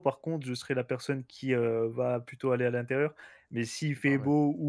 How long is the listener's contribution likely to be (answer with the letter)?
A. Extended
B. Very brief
B